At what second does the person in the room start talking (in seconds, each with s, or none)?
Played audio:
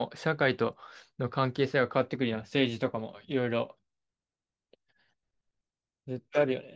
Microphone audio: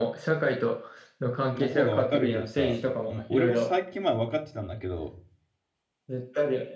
1.5 s